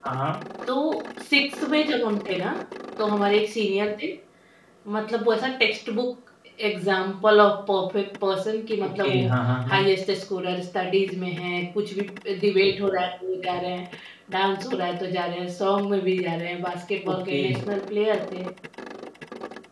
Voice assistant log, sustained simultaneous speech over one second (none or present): none